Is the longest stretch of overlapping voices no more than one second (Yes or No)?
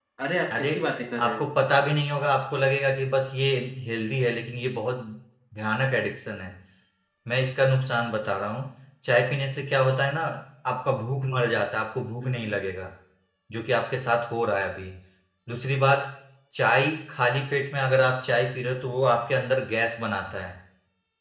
Yes